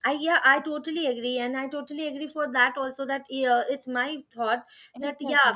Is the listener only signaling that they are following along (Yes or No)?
Yes